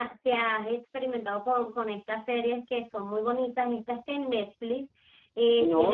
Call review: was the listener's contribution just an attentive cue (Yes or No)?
No